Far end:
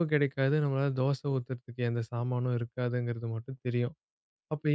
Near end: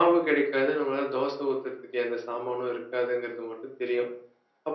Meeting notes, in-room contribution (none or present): none